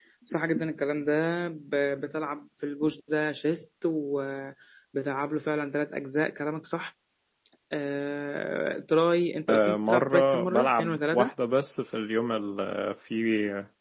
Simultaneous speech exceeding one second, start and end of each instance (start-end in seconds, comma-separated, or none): 9.5-11.3